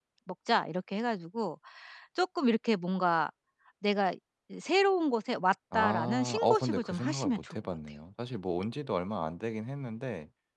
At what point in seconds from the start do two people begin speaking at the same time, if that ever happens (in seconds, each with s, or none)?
5.7 s